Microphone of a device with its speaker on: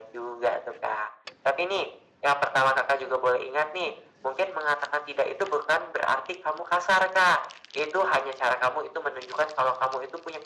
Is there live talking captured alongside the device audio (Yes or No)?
No